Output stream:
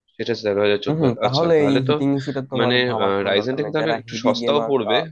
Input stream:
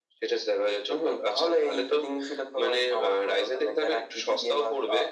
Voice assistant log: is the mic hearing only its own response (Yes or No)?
Yes